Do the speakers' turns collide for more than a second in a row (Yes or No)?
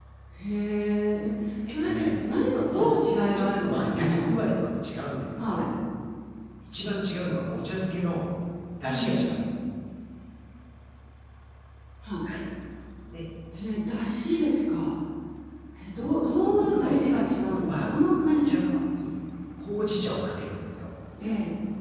Yes